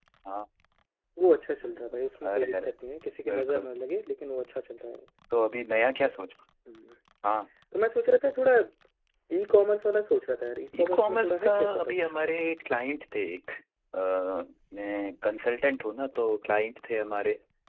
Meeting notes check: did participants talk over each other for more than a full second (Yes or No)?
Yes